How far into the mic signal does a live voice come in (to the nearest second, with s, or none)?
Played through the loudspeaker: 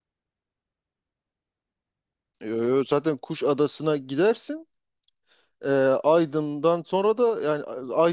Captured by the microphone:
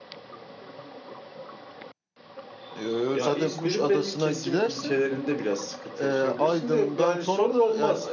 3 s